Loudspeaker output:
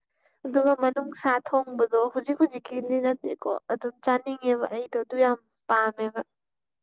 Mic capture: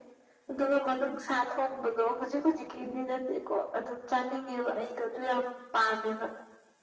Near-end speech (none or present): none